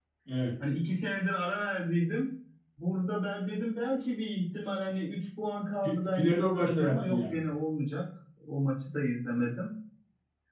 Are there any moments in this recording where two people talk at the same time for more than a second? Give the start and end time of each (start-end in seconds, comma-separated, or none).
5.8-7.4